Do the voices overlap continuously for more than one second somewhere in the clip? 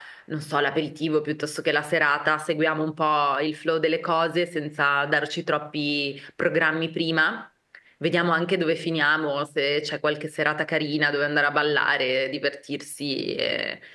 No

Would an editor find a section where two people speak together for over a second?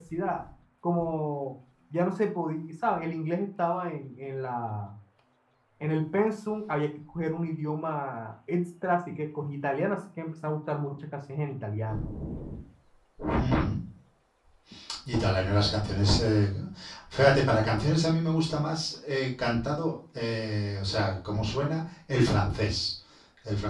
No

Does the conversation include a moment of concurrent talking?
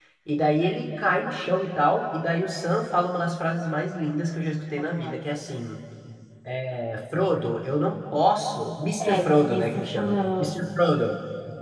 Yes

